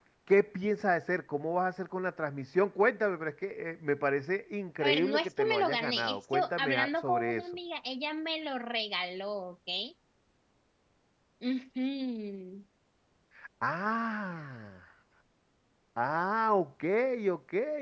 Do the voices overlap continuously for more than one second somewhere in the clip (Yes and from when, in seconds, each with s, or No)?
Yes, from 4.8 s